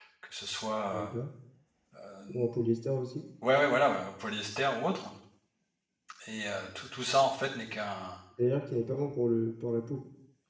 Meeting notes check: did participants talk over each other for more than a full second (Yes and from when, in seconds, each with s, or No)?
No